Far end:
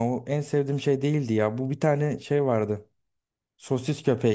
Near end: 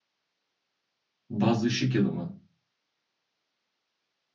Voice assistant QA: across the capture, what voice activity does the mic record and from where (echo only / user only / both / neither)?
user only